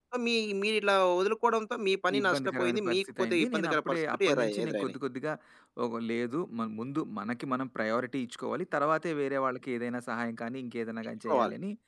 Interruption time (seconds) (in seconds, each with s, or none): 2.2 s